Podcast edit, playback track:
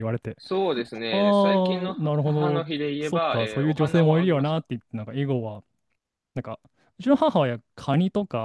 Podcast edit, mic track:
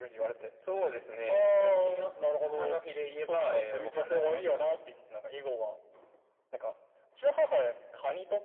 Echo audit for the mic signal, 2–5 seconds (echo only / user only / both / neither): echo only